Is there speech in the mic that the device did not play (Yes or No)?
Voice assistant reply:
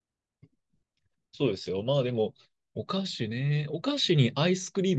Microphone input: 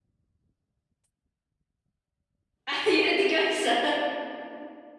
Yes